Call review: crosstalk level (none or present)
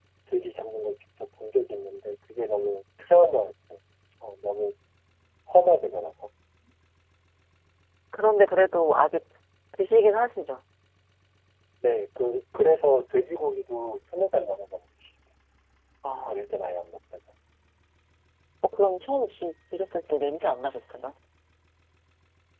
none